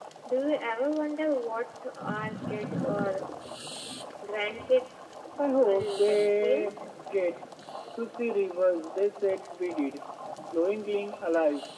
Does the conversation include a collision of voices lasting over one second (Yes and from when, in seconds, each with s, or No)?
Yes, from 5.6 s